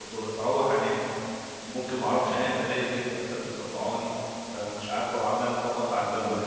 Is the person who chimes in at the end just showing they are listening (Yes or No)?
Yes